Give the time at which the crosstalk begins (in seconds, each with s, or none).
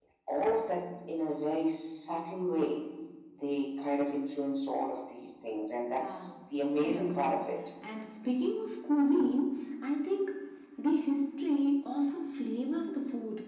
5.9 s